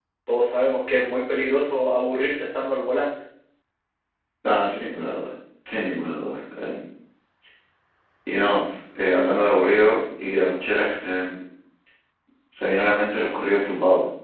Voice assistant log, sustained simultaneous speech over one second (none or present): none